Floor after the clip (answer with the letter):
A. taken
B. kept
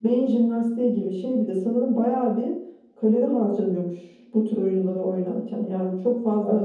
B